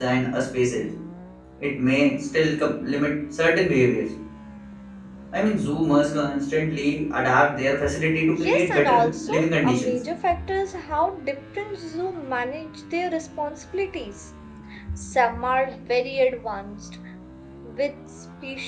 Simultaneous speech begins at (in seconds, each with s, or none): 8.3 s